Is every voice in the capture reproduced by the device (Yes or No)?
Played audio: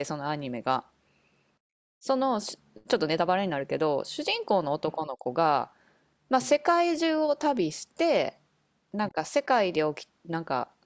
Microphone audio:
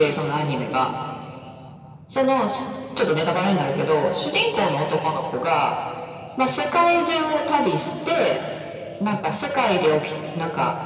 Yes